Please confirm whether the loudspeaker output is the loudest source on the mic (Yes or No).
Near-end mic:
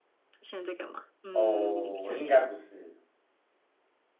No